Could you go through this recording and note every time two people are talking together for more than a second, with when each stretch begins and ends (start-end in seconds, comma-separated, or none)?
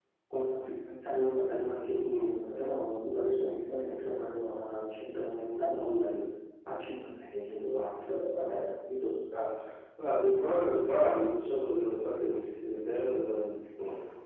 none